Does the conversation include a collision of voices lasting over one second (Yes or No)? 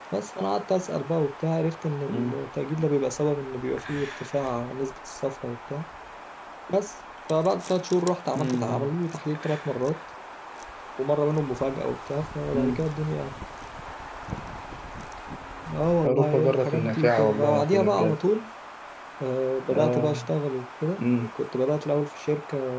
Yes